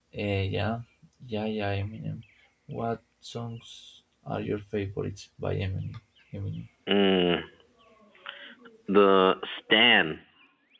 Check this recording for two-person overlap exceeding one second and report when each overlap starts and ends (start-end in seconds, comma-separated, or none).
none